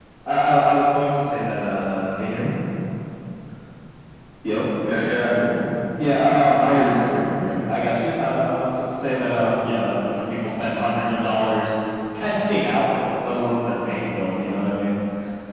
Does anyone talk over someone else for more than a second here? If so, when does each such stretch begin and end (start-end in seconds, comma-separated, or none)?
none